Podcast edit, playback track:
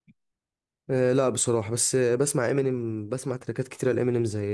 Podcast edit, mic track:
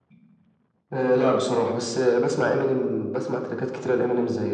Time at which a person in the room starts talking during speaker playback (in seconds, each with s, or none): none